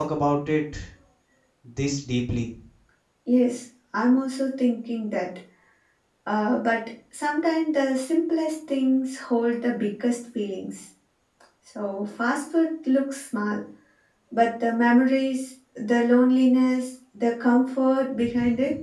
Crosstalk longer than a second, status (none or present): none